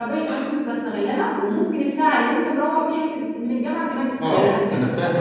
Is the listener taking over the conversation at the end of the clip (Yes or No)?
Yes